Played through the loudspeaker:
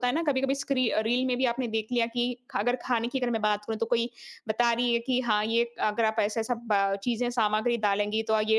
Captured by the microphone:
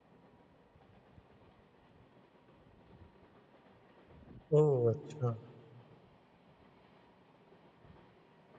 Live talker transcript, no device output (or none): ओह! अच्छा,